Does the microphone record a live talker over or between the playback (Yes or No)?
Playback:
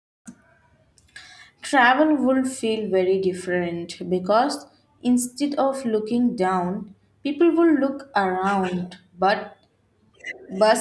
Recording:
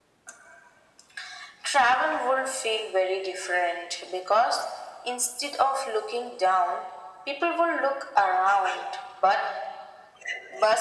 No